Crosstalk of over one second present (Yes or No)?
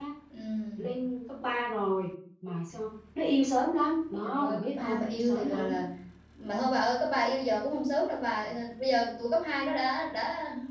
Yes